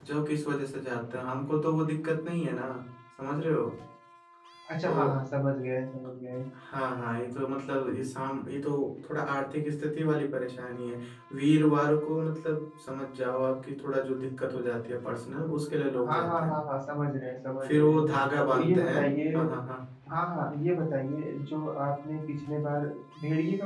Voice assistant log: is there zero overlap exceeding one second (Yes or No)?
Yes